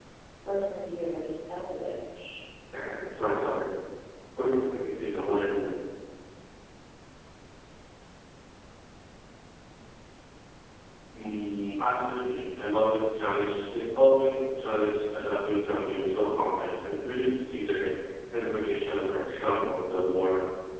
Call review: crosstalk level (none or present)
none